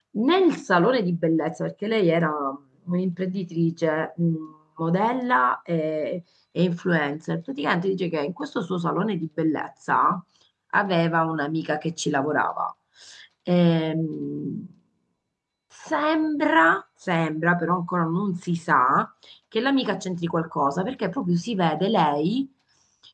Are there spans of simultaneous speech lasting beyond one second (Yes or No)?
No